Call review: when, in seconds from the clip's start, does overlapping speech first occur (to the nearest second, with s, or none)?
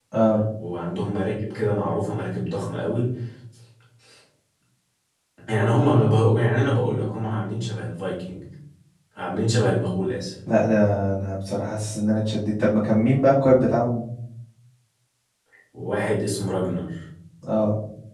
none